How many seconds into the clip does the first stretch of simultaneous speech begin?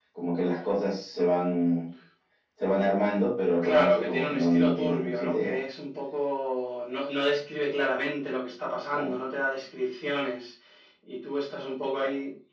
3.6 s

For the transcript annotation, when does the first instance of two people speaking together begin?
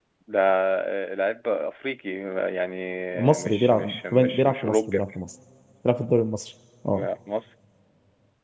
3.4 s

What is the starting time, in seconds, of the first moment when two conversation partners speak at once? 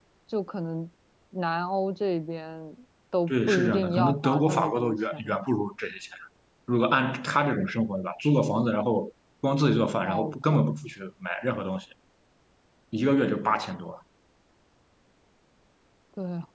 3.3 s

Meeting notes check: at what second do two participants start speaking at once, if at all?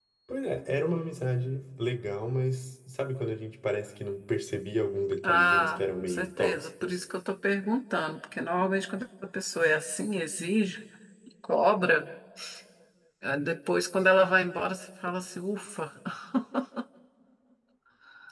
5.2 s

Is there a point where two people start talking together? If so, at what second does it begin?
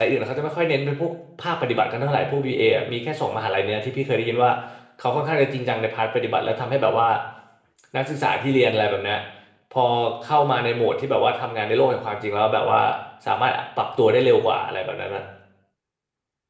none

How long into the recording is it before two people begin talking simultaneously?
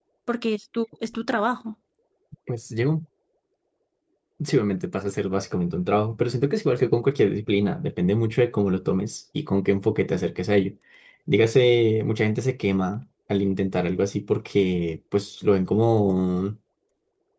none

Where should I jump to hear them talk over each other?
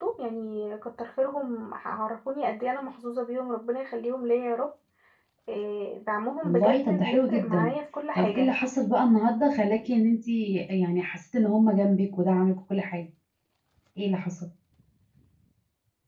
6.4 s

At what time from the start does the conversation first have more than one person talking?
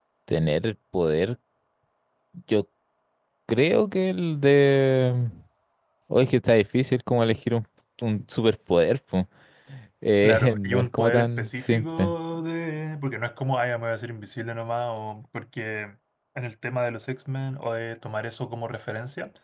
10.2 s

